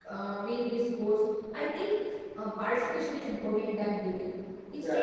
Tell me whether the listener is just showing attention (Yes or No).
Yes